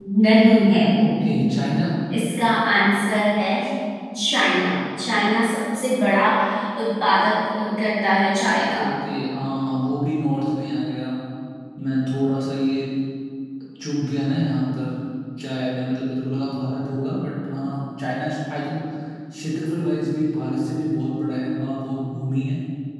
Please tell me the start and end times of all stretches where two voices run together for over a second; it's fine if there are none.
none

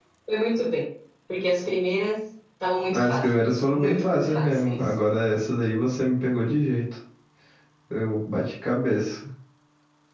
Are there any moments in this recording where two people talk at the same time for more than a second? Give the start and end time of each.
2.9-4.9

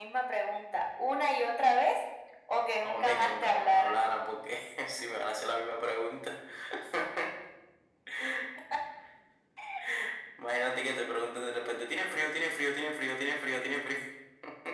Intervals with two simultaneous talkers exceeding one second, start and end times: 2.8-4.0

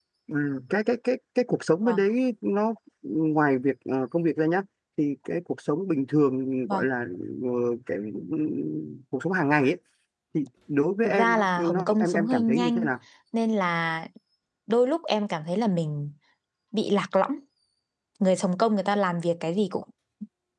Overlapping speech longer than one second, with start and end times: 11.0-12.9

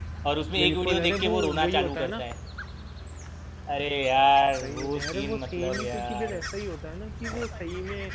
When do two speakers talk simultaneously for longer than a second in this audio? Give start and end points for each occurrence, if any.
0.6-2.2, 4.6-6.4

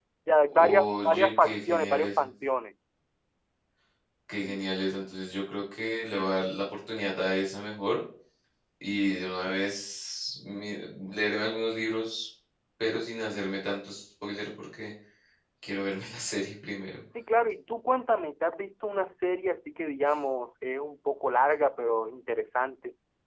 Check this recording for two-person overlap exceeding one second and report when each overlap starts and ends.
0.5-2.3

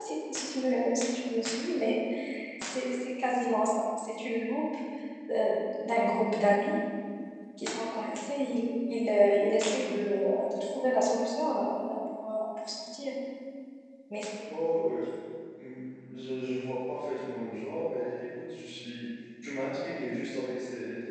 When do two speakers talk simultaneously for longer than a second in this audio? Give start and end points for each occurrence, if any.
none

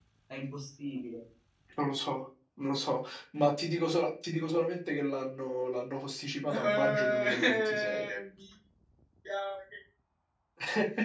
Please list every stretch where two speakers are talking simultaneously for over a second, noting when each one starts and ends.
6.4-8.1

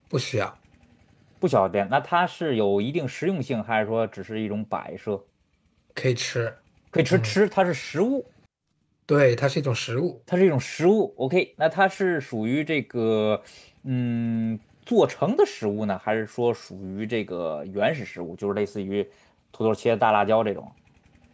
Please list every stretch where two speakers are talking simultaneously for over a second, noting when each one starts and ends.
none

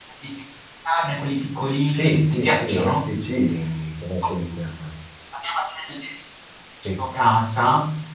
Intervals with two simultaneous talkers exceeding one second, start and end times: 1.9-3.1

